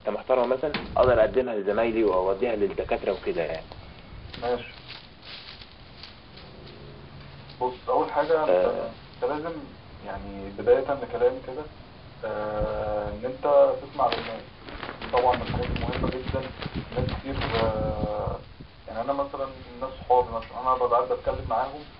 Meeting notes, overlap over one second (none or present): none